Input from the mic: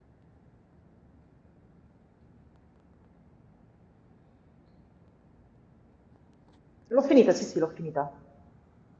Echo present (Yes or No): No